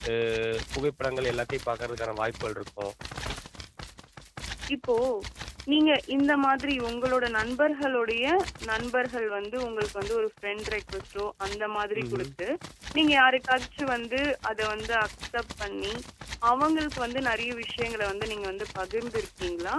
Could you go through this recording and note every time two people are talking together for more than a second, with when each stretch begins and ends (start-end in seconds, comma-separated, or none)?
none